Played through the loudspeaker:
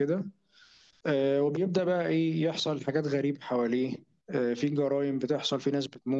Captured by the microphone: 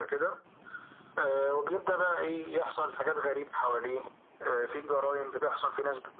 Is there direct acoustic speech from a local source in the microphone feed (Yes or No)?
No